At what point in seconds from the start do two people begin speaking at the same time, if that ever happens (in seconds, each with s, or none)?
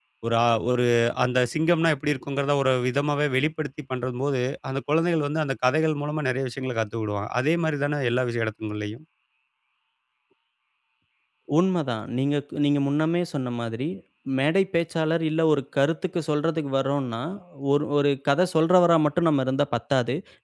none